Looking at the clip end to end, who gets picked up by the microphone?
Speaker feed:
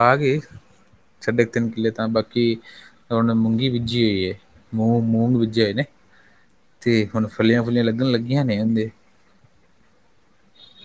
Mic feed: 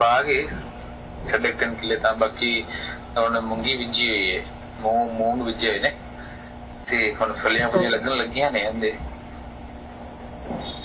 both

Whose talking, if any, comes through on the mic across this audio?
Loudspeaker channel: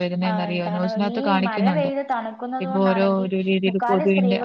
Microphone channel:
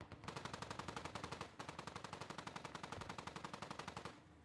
neither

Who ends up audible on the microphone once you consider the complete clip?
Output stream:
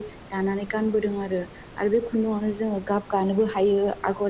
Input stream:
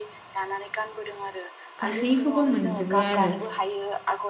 both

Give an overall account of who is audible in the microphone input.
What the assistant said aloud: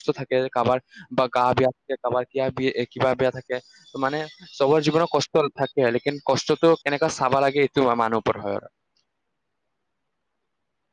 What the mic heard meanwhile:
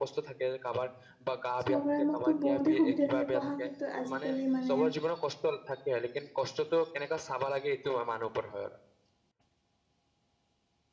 both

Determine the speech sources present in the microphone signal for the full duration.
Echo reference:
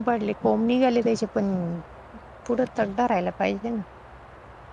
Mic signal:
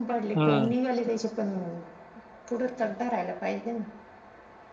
both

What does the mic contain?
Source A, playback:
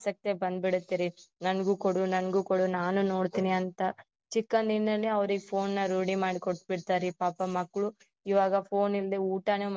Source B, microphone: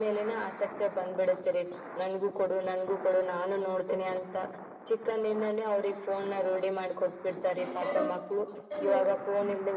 both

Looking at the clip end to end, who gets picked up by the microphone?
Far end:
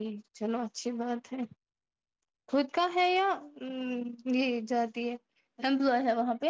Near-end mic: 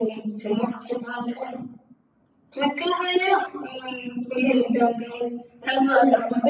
echo only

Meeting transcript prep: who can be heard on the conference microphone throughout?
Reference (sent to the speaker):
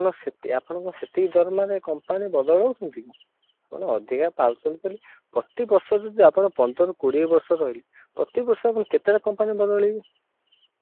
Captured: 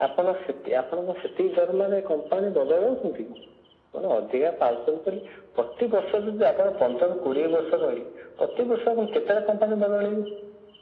echo only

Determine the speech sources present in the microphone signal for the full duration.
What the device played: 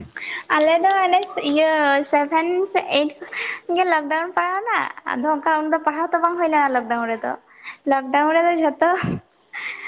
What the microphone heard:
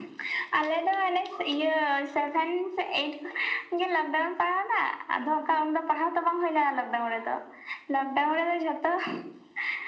echo only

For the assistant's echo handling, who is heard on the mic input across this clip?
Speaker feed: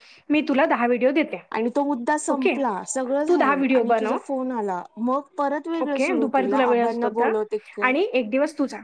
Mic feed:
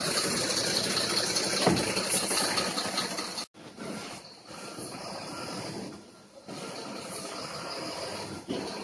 neither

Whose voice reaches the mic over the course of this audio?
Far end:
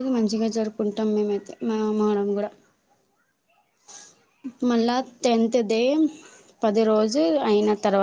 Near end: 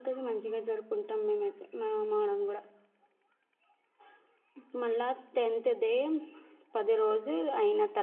echo only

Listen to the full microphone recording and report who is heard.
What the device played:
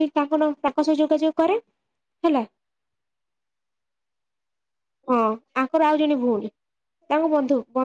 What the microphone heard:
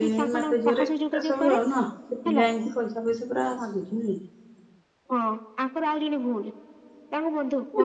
both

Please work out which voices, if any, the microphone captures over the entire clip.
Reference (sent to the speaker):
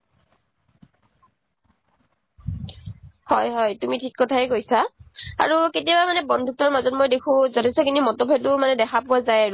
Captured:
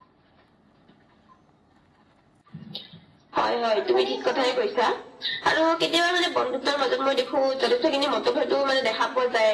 both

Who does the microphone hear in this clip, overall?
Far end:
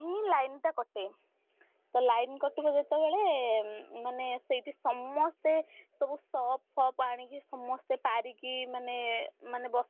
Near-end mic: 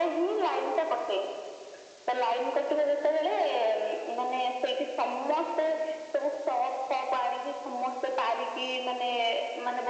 echo only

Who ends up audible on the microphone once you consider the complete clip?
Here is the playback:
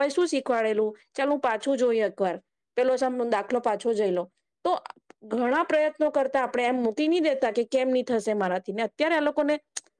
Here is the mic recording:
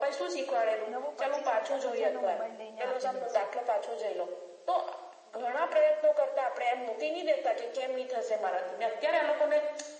both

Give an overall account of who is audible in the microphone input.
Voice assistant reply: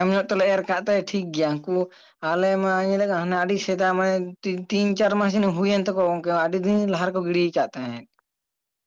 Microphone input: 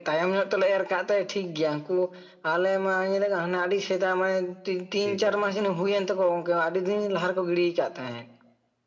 both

